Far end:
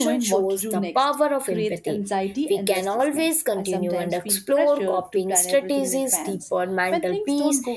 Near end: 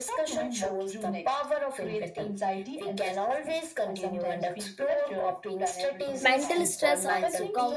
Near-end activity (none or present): present